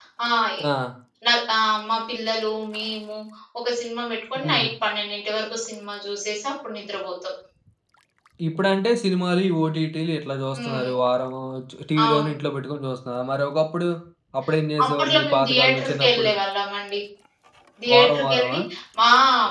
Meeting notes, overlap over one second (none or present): present